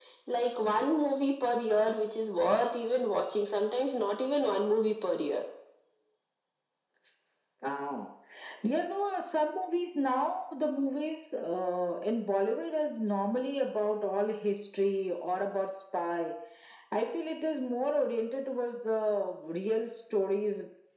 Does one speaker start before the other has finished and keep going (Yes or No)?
No